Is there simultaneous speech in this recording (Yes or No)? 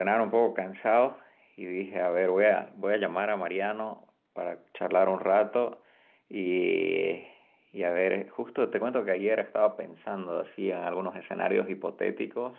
No